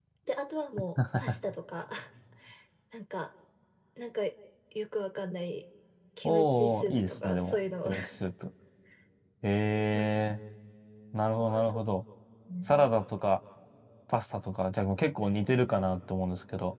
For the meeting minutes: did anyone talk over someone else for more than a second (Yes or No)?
Yes